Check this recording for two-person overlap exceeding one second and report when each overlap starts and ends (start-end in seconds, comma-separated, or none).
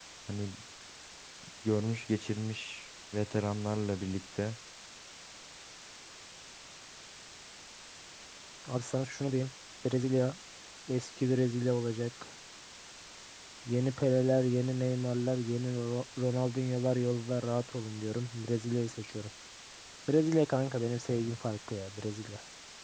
none